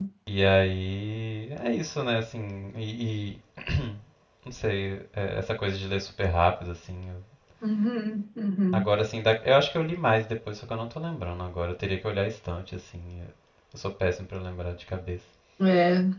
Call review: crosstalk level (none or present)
none